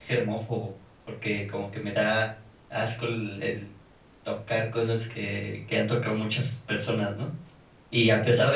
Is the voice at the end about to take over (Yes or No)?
No